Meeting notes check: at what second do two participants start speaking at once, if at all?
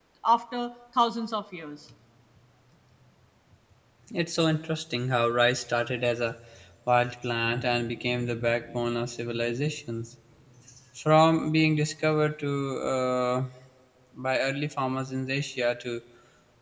none

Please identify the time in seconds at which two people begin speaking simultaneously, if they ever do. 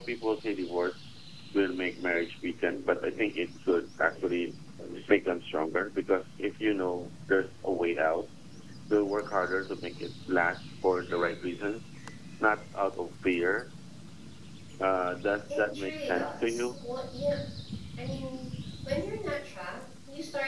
15.5 s

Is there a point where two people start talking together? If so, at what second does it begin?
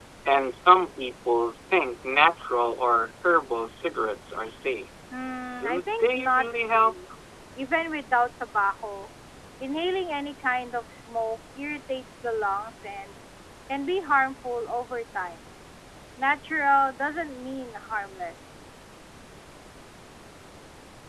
5.5 s

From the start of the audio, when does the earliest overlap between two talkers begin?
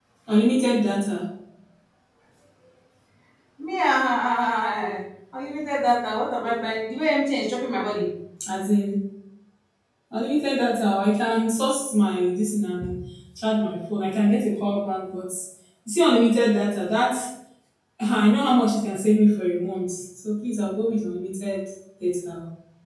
none

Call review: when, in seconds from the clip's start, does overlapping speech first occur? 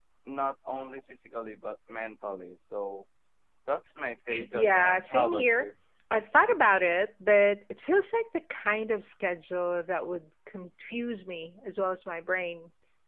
4.3 s

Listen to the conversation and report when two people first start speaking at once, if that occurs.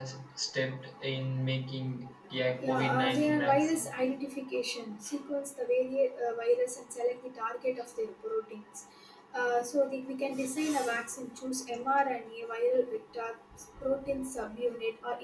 2.6 s

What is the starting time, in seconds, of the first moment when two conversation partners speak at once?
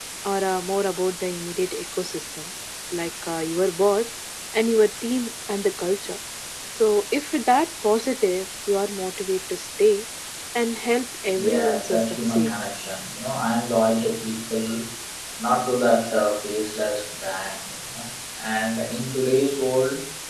11.3 s

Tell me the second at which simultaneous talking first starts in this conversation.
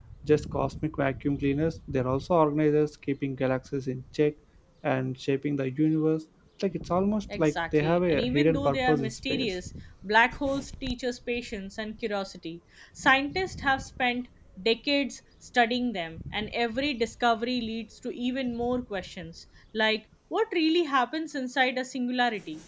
7.3 s

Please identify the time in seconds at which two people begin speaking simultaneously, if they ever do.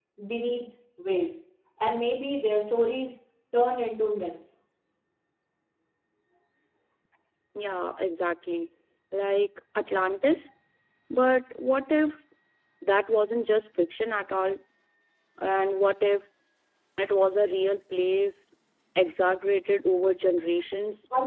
none

